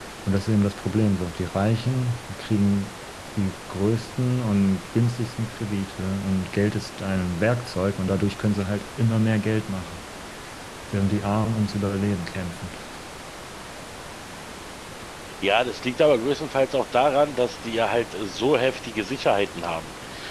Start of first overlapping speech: none

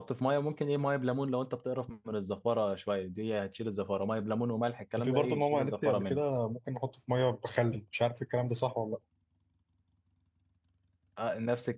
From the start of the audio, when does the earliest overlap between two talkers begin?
5.0 s

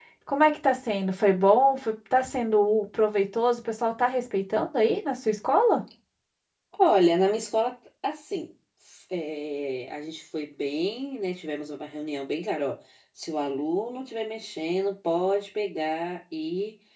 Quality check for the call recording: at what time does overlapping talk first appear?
none

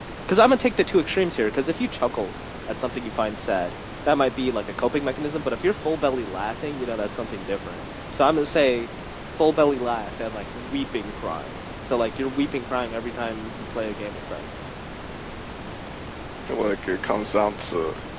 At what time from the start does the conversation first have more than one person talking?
none

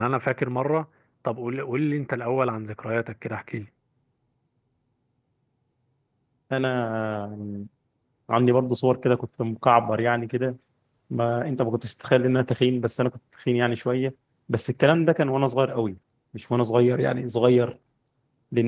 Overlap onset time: none

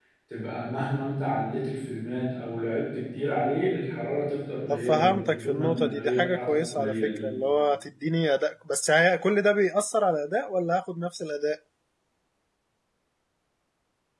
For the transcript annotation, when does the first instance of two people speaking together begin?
4.7 s

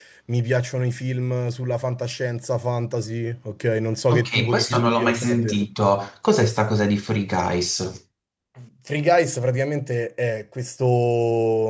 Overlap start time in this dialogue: 4.1 s

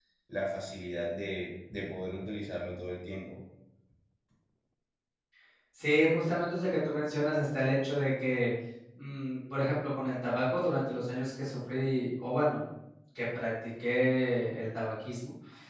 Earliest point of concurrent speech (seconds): none

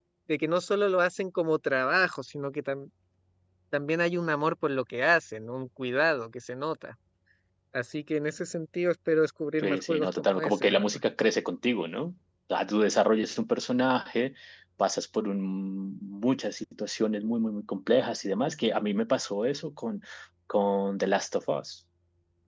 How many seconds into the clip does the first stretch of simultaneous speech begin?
9.6 s

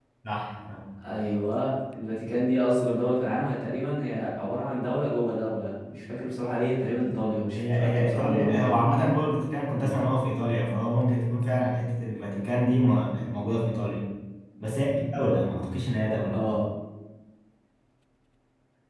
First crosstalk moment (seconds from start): 7.5 s

